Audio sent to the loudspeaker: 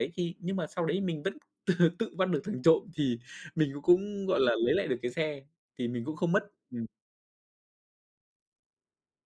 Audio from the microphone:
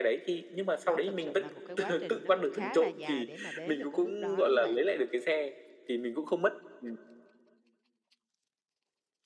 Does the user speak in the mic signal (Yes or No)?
Yes